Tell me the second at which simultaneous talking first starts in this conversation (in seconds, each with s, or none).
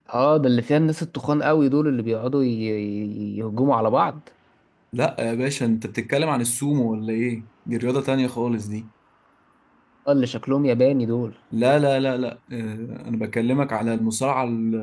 none